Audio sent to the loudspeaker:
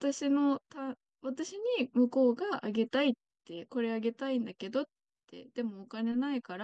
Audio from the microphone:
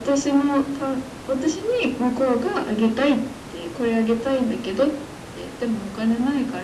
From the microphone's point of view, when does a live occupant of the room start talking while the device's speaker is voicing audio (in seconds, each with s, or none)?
none